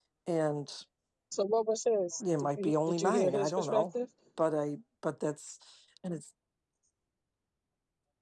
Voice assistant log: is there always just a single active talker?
No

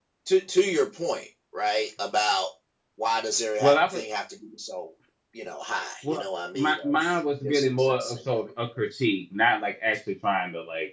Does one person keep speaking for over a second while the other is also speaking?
Yes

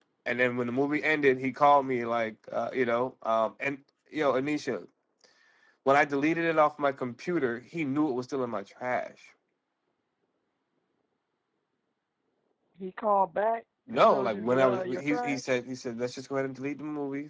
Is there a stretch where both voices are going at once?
Yes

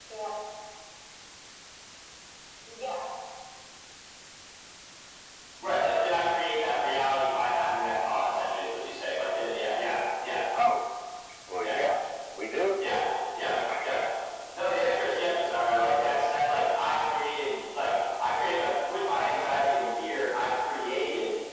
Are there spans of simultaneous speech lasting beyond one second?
No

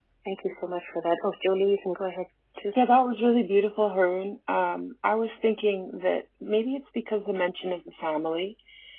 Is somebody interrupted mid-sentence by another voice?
No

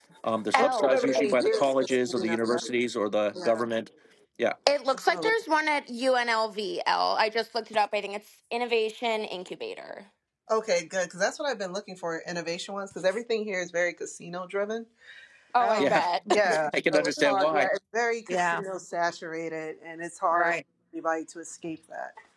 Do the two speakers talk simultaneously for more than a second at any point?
Yes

